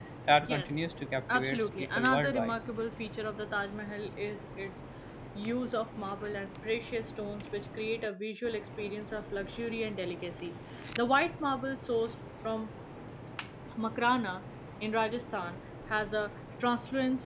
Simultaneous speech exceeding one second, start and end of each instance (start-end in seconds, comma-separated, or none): 1.3-2.5